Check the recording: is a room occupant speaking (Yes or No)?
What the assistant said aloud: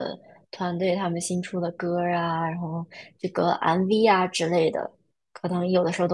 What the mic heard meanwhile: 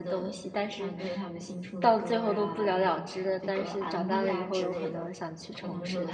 Yes